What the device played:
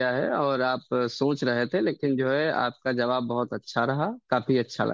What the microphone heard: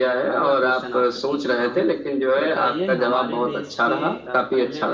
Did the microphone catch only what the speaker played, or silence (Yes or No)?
No